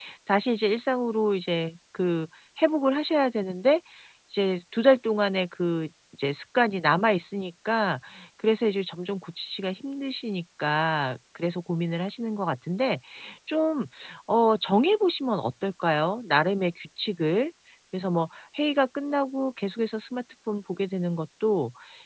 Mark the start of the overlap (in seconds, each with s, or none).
none